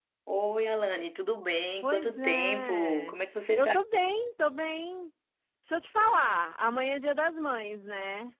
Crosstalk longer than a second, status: present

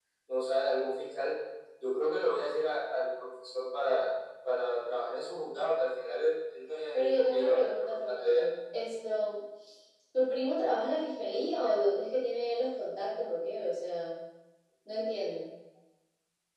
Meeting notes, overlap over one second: present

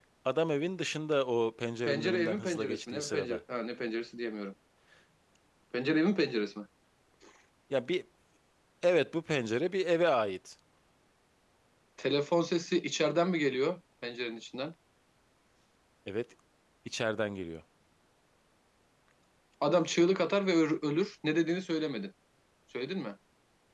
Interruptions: present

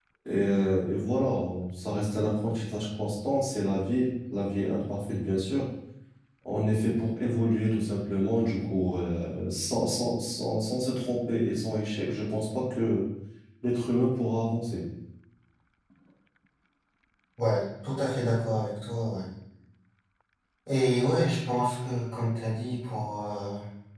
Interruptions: none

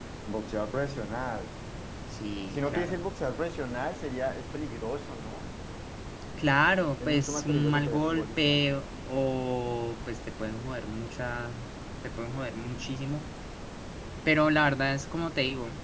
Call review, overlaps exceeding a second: present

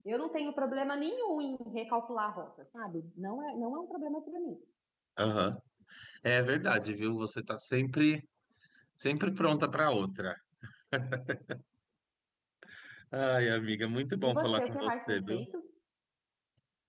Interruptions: present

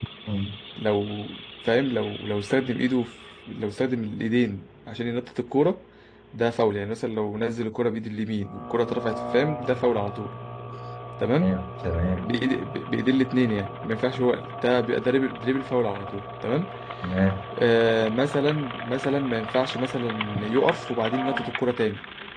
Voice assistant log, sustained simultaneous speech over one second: none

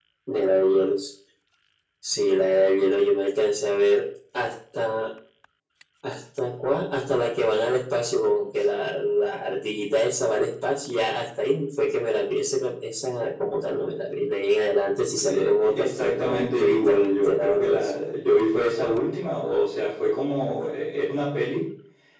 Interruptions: present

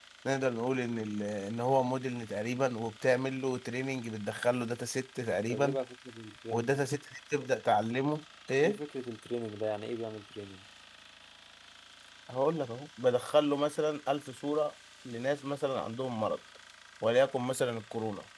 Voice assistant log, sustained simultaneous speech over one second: none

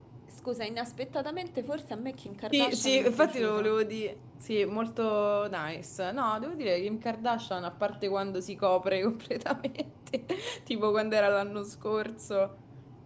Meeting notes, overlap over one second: present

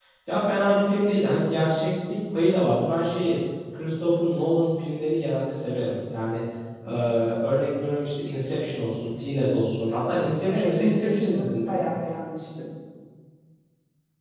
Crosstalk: present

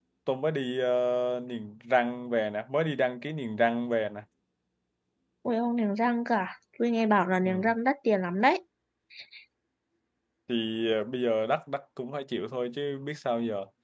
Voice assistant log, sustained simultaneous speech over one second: none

